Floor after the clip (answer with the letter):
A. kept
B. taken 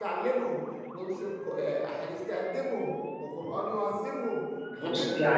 B